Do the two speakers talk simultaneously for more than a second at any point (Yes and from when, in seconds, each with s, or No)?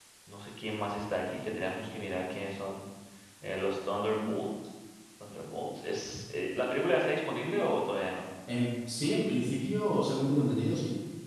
No